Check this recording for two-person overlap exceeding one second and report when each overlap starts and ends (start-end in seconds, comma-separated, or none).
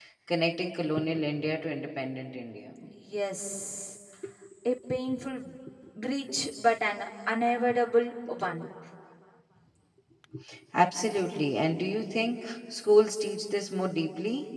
none